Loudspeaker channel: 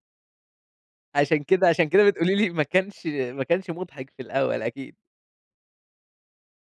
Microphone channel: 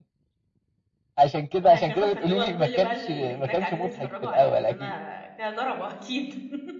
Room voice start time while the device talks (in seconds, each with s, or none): 1.6 s